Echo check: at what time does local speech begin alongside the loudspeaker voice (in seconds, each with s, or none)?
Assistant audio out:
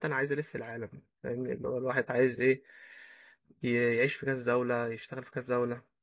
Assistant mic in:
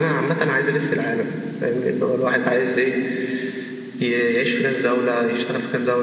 none